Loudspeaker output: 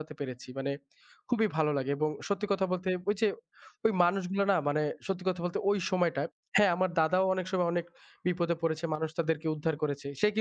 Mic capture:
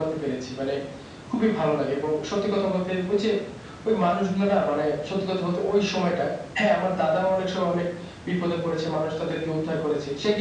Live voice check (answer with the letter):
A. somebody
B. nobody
B